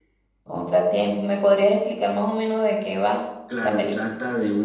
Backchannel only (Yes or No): No